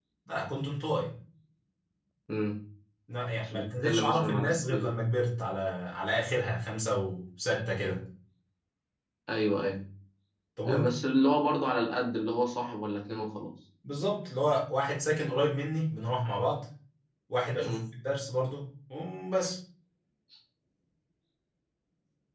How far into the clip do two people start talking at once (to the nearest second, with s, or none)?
3 s